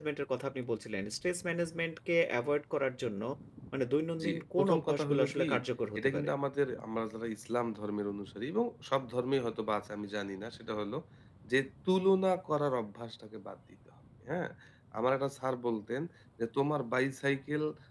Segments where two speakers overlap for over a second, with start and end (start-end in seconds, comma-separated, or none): 4.2-5.5